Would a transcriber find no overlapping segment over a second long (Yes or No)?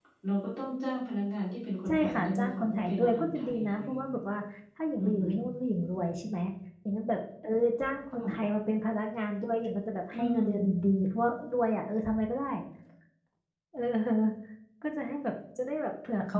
No